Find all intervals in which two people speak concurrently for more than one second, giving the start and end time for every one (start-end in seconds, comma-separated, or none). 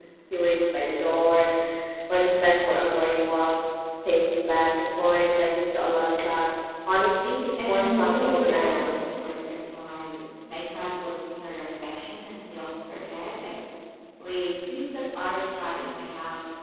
7.6-9.0